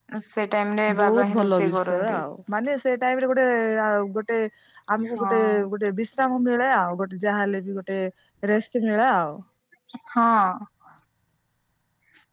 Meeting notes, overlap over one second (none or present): present